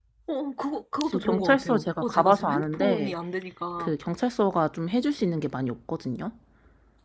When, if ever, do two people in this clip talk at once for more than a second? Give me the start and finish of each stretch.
1.0-3.1

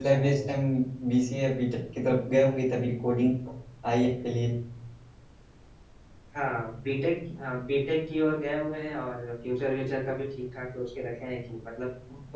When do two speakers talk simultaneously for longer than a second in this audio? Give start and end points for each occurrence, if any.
none

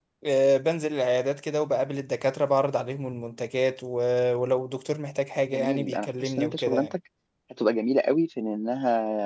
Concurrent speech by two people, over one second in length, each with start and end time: 5.5-6.9

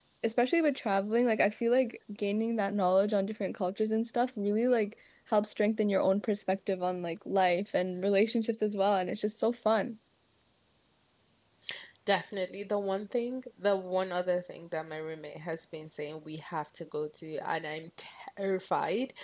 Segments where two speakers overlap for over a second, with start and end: none

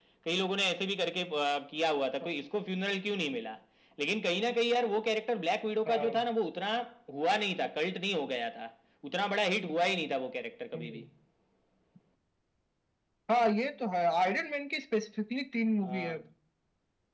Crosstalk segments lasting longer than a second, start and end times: none

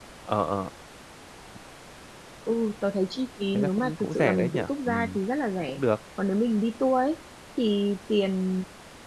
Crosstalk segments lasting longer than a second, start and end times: 3.5-5.2

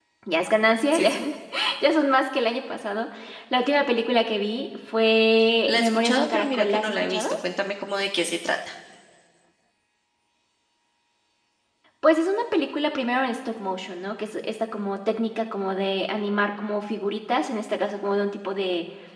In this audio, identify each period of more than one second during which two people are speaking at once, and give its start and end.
5.7-7.3

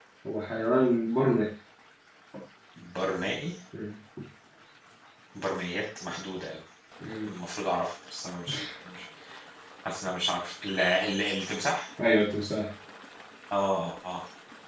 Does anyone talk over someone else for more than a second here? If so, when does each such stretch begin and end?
none

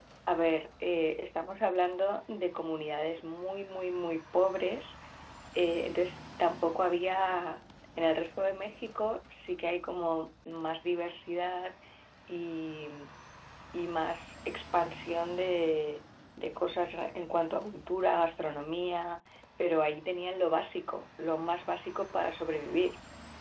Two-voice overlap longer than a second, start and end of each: none

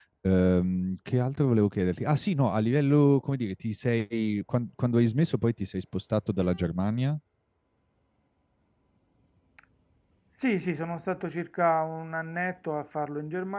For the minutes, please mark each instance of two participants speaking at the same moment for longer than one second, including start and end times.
none

